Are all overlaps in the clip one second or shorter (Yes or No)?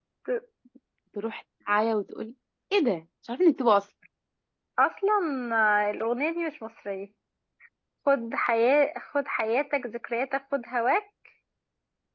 Yes